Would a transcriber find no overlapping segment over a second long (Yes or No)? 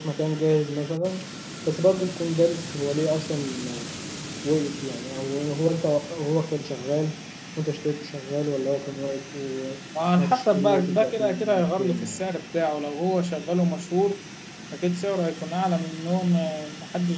No